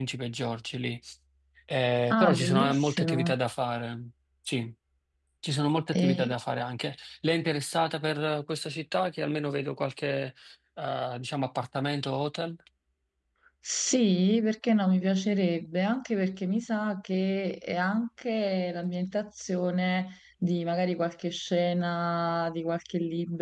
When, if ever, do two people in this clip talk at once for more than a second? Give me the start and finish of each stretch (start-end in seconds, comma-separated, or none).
2.1-3.3